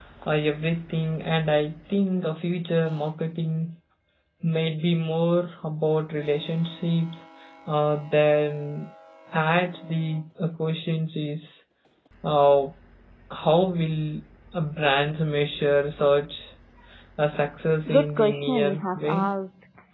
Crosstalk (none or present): present